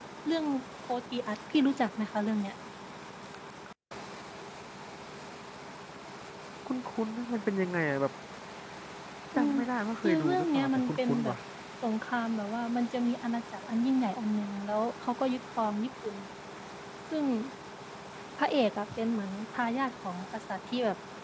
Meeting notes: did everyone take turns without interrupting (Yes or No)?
No